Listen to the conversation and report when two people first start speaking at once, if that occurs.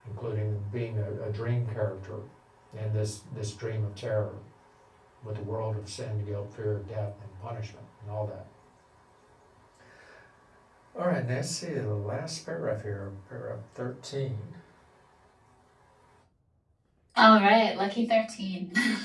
none

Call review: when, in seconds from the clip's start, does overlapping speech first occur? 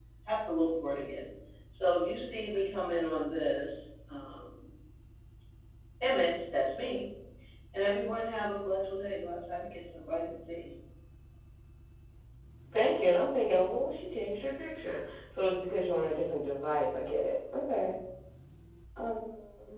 none

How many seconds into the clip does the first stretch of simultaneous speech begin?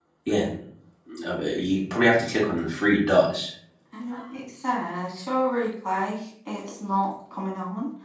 none

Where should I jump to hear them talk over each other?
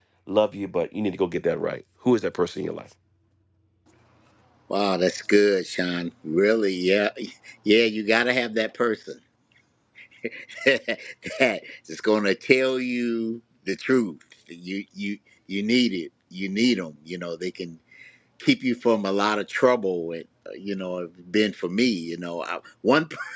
none

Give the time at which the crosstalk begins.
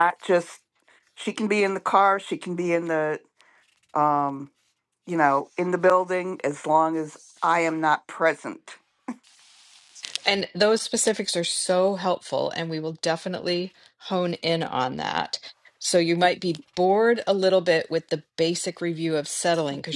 none

